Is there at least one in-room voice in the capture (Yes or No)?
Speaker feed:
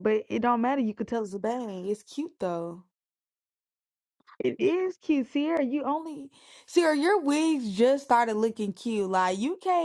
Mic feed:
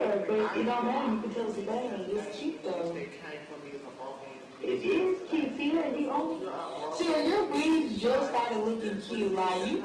Yes